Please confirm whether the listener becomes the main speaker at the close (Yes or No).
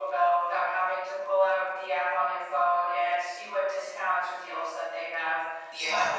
No